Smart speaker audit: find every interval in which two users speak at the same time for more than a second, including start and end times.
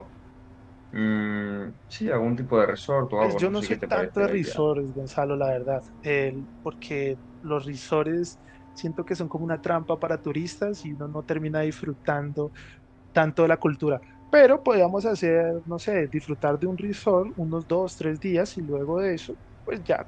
3.2-4.6

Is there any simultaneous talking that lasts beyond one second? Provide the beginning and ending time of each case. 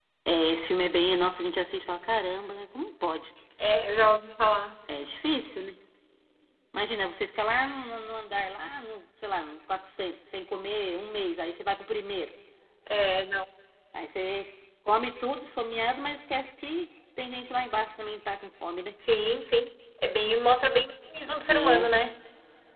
none

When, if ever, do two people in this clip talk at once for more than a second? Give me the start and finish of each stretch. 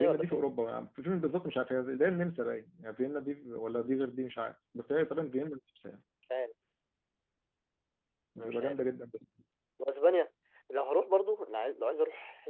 none

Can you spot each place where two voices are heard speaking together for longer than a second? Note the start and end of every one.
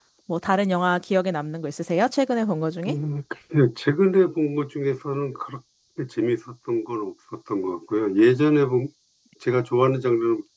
none

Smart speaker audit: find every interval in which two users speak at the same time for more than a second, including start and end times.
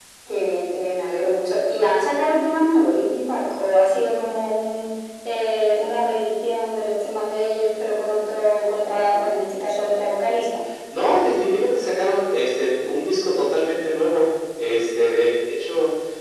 none

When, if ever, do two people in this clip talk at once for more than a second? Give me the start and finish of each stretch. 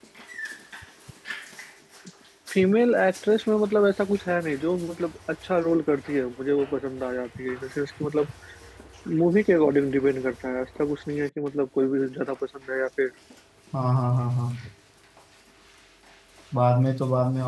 none

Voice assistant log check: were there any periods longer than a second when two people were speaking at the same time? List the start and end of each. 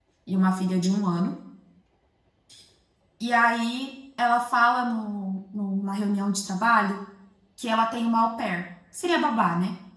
none

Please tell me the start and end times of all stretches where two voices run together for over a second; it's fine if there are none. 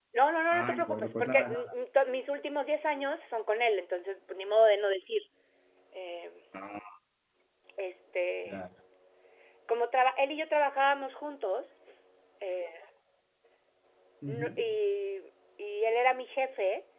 0.5-1.7

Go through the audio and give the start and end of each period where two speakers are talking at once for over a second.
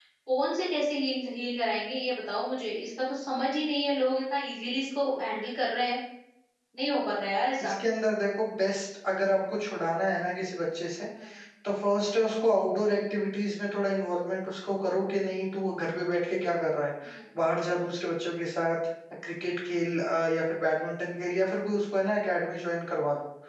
none

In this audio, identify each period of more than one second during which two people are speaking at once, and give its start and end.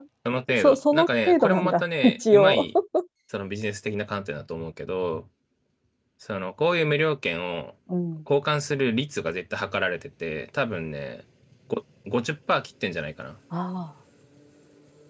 0.5-2.6

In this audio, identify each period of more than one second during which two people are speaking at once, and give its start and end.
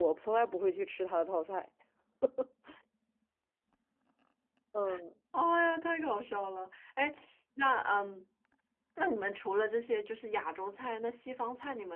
none

